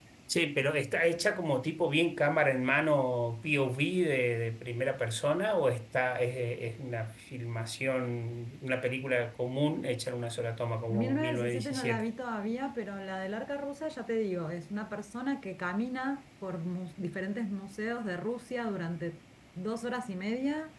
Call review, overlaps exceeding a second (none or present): present